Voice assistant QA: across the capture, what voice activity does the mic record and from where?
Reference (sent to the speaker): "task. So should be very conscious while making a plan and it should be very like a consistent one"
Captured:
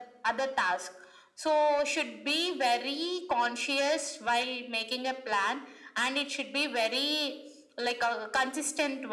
echo only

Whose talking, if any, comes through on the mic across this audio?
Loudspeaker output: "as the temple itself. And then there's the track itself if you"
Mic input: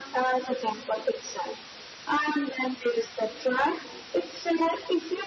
echo only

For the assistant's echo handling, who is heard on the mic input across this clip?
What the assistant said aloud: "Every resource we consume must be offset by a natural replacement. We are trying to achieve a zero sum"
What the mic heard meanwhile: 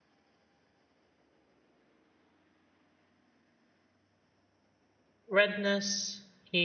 user only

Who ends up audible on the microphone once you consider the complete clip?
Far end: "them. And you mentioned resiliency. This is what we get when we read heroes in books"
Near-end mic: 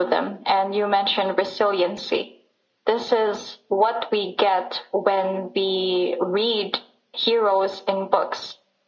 echo only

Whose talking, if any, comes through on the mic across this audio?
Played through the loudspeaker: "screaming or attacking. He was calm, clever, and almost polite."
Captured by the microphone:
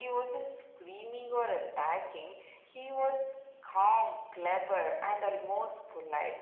echo only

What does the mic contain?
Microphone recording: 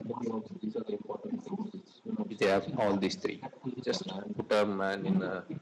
both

